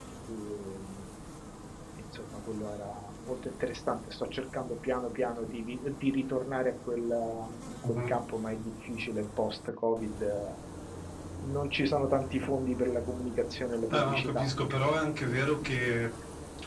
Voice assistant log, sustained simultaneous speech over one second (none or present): none